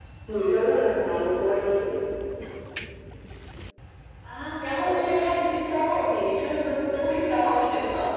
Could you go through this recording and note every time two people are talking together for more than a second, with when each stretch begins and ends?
none

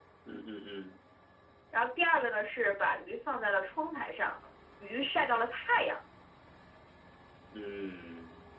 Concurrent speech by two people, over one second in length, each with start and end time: none

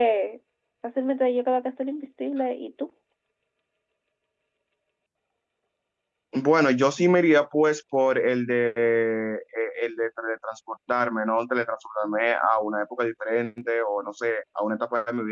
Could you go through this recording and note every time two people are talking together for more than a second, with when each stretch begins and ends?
none

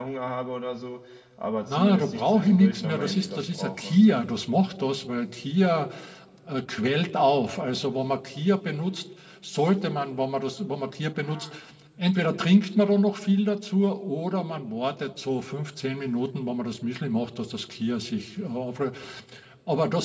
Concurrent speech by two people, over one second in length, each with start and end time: 1.7-3.9

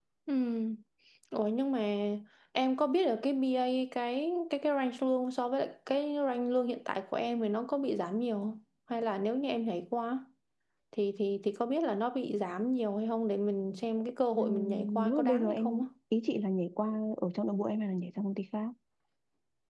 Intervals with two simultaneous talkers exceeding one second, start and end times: 14.3-15.9

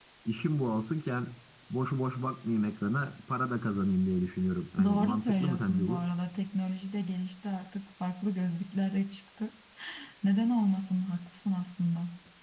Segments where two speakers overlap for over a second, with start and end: 4.8-6.0

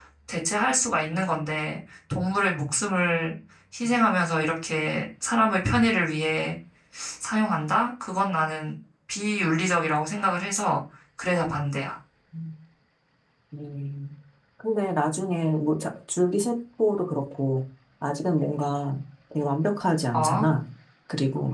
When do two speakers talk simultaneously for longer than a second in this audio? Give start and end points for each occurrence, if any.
none

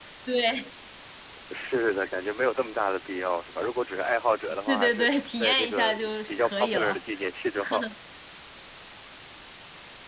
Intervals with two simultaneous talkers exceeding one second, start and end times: 4.7-7.0

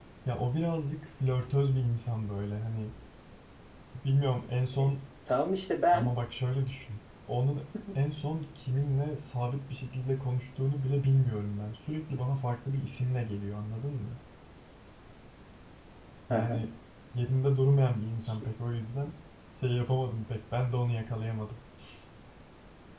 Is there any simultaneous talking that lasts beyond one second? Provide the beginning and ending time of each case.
none

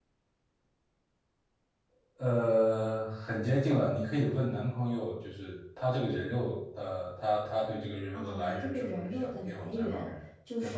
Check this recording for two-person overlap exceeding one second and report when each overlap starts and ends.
8.1-10.1

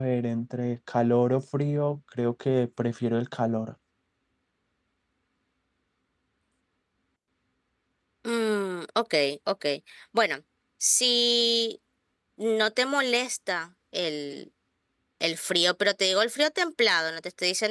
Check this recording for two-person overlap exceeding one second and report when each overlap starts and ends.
none

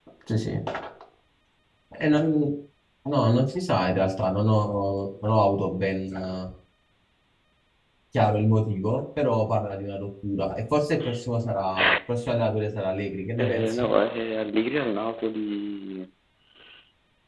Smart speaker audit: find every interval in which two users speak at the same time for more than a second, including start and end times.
none

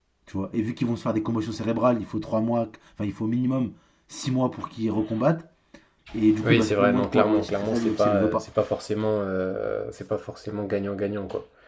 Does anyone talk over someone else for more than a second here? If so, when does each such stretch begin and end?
6.4-8.4

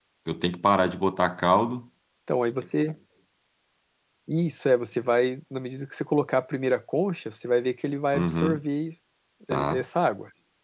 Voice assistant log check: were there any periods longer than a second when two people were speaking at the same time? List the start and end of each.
none

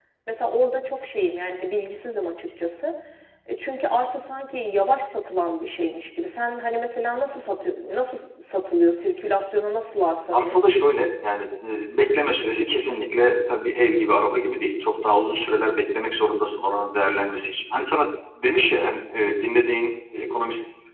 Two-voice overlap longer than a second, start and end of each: none

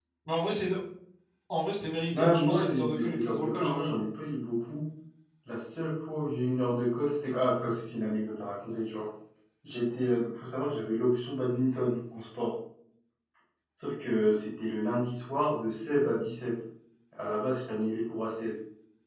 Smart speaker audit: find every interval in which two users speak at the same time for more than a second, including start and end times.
2.1-4.0

